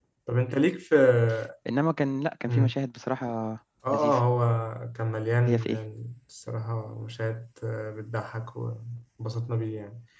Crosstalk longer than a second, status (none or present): none